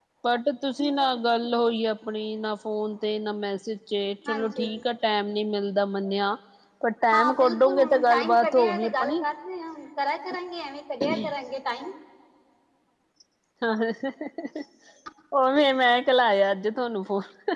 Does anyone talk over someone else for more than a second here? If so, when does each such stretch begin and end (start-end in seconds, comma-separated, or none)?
7.1-9.2